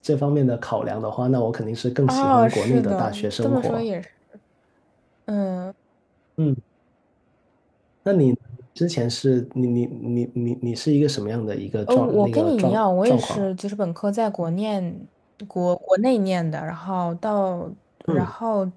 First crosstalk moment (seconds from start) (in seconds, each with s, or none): 2.1 s